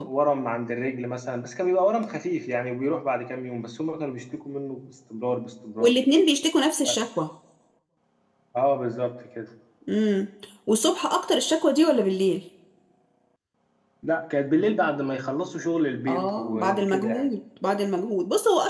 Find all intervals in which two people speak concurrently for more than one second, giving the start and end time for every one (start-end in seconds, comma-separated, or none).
16.1-17.3